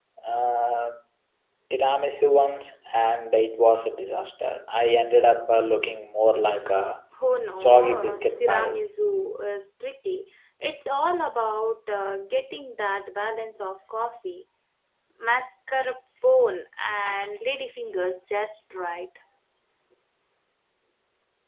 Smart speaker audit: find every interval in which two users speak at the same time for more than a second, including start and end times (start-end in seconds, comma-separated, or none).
7.6-8.8